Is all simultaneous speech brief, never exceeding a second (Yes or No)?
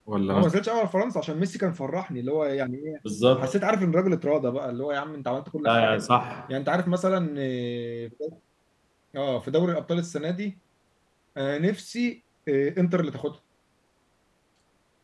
Yes